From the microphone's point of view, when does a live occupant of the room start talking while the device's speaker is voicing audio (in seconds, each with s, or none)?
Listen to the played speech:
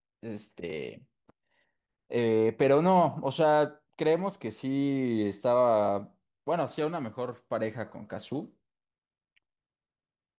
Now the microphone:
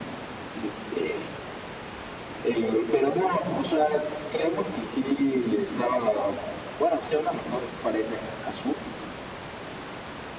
none